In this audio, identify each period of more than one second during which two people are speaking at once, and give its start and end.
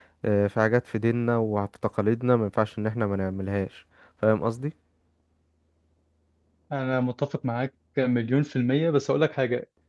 none

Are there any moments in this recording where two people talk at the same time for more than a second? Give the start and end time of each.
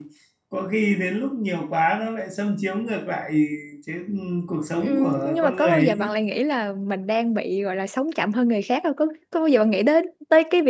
4.8-6.1

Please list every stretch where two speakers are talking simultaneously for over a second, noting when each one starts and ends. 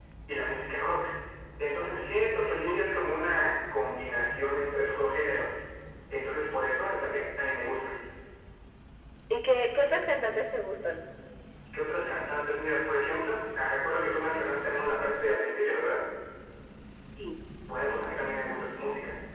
none

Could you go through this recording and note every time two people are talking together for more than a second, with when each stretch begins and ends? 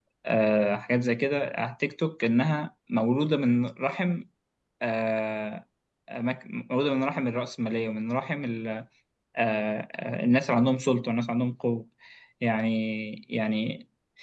none

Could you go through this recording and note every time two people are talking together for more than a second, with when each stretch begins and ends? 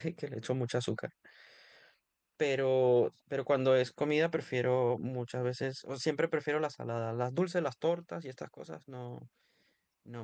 none

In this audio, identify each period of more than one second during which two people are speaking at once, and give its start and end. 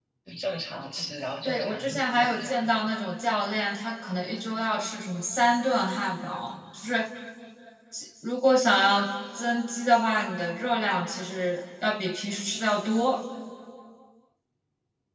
1.4-2.8

